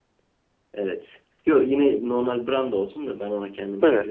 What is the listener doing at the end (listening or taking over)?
listening